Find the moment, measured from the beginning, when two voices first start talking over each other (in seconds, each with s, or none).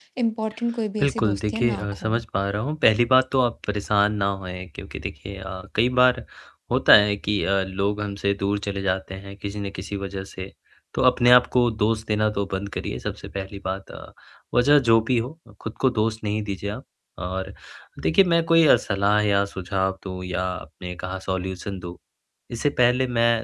1.0 s